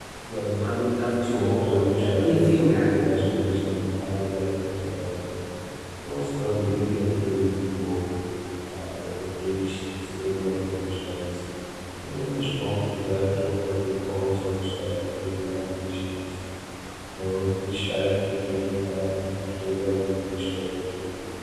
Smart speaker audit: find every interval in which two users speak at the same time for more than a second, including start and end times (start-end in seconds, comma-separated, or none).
1.2-3.2